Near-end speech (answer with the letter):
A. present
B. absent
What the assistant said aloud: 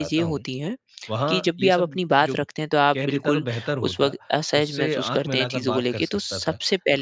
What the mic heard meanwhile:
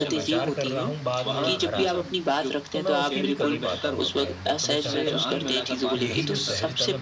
A